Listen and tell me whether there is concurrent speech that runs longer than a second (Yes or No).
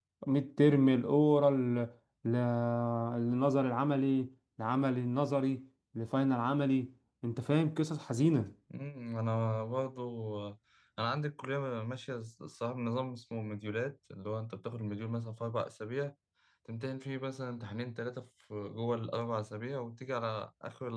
No